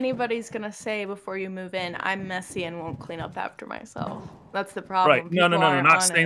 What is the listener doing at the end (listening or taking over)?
taking over